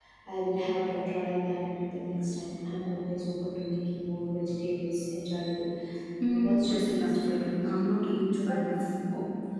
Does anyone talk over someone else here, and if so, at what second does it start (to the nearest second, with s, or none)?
6 s